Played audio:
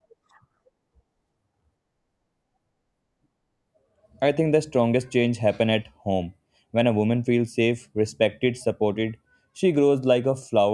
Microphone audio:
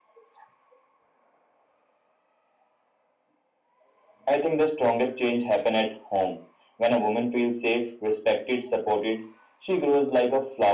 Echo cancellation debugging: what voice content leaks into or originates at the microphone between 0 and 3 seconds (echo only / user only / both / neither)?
neither